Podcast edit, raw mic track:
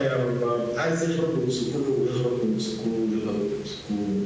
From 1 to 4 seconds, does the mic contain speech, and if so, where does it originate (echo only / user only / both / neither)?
echo only